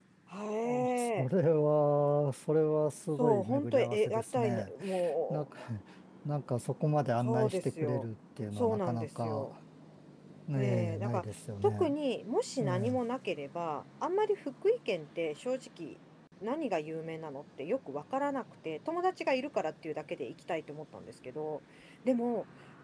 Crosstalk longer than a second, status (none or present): present